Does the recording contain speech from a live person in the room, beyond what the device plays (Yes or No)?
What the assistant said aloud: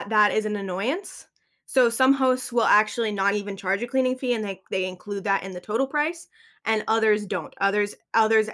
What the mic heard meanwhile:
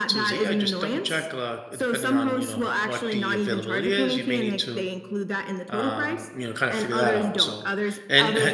Yes